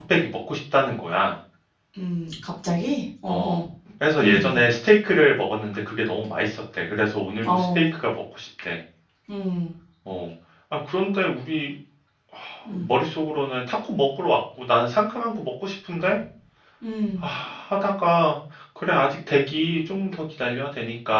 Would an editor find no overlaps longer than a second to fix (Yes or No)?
Yes